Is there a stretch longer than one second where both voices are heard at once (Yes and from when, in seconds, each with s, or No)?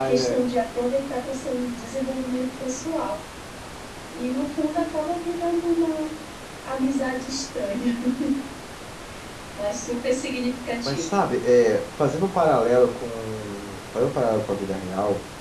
No